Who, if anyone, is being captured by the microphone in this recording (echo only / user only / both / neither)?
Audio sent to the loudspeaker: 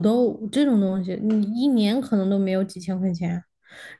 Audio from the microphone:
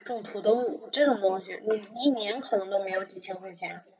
echo only